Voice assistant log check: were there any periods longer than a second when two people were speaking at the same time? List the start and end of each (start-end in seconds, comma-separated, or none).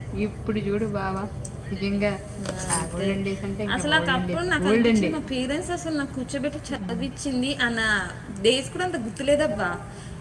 3.7-5.1